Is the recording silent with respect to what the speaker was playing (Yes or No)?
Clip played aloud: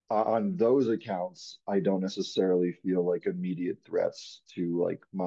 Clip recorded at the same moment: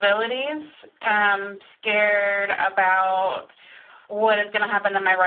Yes